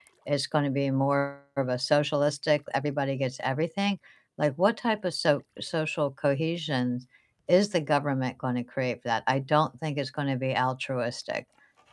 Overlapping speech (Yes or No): No